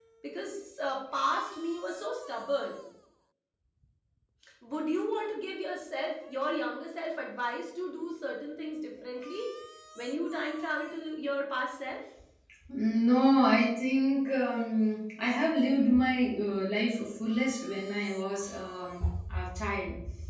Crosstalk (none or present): none